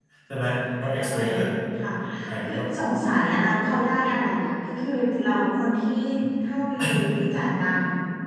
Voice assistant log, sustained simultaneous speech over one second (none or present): none